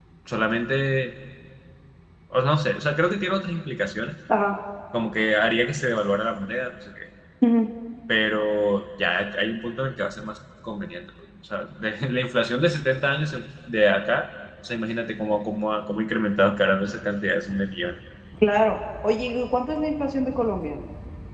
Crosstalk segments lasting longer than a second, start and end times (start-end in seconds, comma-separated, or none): none